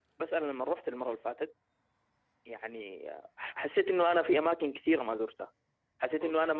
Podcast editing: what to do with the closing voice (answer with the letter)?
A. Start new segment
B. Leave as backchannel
B